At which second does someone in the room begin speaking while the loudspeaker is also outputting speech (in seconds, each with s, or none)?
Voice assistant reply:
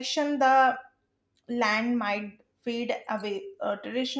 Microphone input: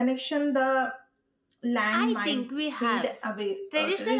1.9 s